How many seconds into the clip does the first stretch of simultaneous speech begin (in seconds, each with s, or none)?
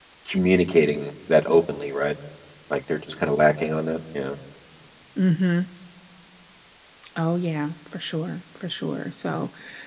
none